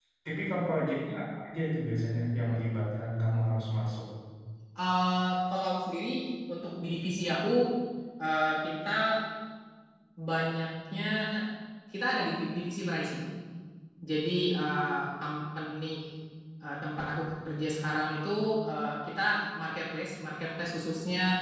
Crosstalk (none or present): none